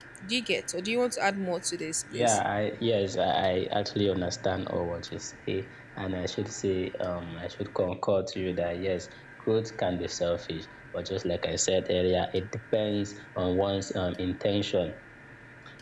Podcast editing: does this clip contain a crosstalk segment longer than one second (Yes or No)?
No